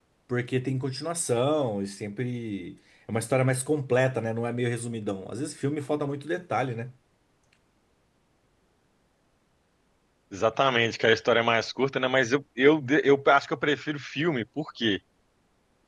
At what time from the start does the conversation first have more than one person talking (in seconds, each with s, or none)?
none